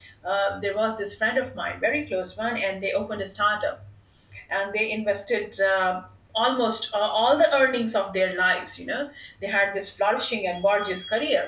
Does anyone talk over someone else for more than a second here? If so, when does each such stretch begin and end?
none

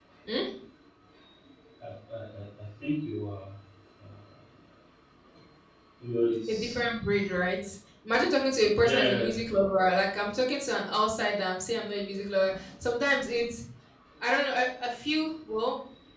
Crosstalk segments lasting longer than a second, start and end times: none

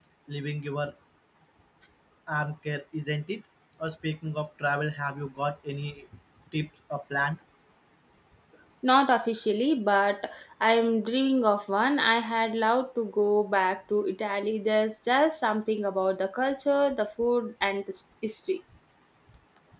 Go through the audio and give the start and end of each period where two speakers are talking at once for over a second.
none

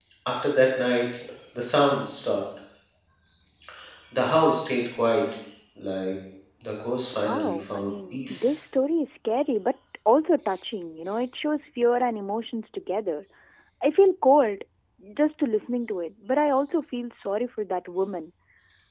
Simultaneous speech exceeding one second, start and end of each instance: 7.1-8.6

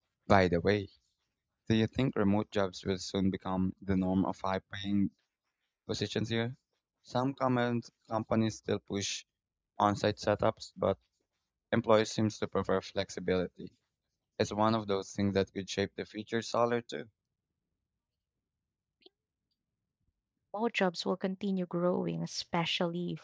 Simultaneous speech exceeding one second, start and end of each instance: none

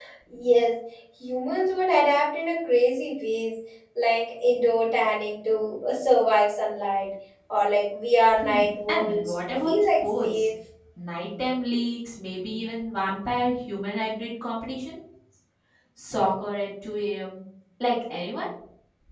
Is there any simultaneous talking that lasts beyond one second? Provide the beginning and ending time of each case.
8.9-10.5

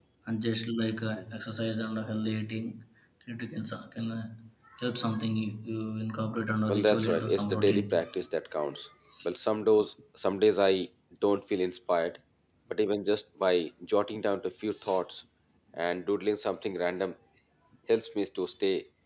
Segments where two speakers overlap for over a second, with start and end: 6.7-8.0

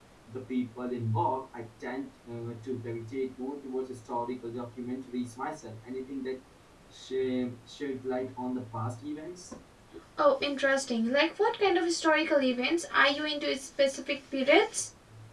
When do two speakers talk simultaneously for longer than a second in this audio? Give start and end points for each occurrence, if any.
none

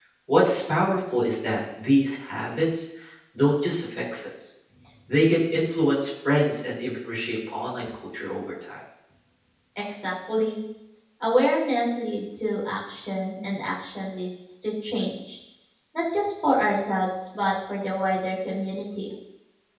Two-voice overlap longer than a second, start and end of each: none

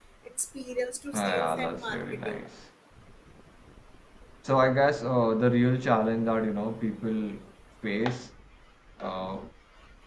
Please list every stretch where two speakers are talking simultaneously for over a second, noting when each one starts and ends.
1.1-2.4

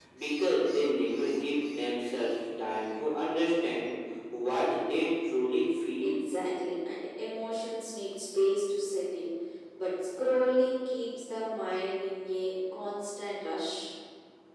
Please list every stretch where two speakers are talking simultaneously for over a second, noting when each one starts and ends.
none

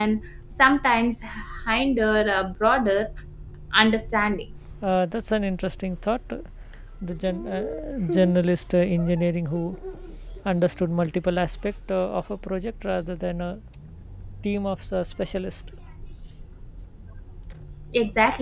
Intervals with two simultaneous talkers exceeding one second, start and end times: none

